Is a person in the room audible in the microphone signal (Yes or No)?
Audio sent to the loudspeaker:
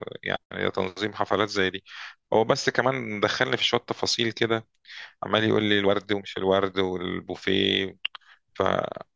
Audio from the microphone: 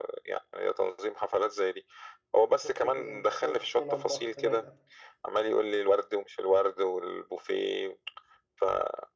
Yes